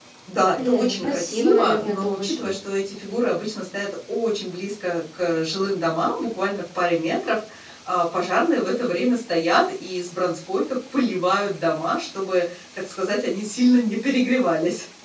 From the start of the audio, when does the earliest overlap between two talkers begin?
1 s

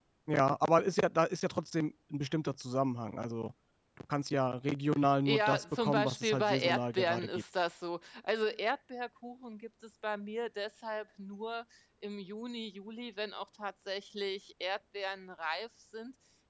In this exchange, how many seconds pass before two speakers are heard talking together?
5 s

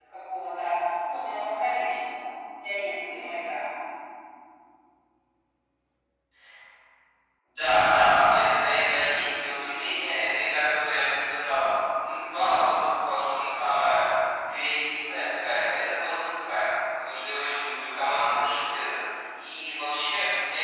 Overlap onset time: none

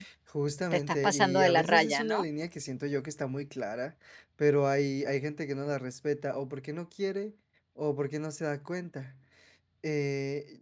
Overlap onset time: 1 s

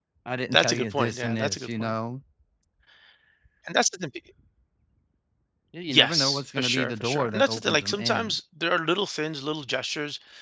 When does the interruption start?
1 s

